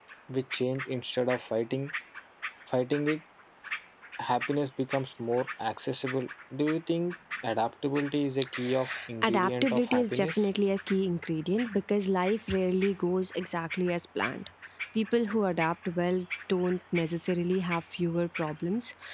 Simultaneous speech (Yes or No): Yes